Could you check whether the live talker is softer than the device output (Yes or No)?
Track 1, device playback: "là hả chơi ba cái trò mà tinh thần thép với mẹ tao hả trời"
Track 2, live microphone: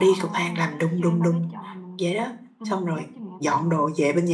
No